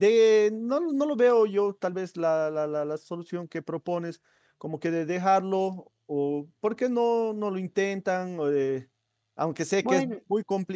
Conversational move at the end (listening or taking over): listening